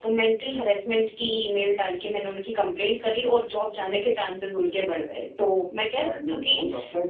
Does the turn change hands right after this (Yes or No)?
Yes